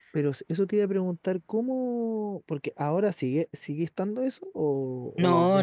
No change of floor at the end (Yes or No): No